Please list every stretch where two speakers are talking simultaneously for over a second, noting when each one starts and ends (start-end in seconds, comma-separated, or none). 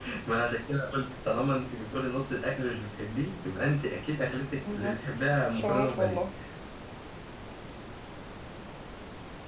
4.6-6.2